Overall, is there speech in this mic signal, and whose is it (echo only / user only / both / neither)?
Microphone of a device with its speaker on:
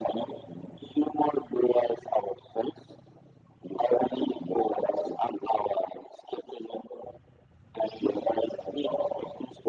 echo only